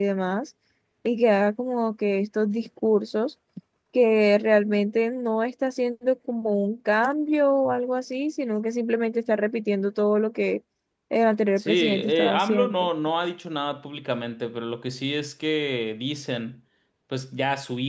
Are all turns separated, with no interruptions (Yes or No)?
No